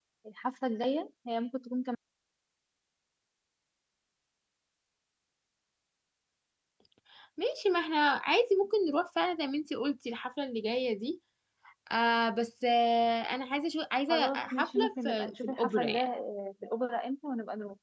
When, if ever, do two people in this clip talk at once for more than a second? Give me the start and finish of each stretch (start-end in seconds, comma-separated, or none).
14.1-16.0